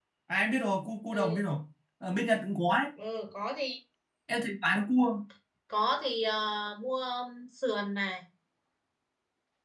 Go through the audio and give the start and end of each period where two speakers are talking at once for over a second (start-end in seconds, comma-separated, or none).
none